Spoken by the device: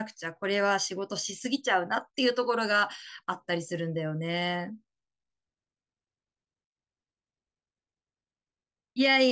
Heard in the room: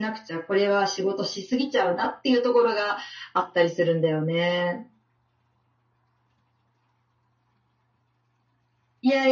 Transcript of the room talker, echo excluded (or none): none